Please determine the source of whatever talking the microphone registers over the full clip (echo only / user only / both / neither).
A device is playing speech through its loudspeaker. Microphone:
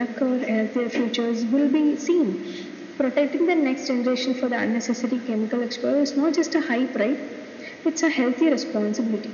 echo only